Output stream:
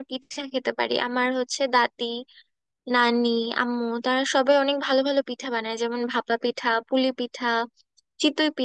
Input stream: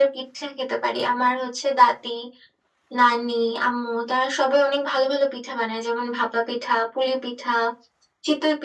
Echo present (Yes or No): Yes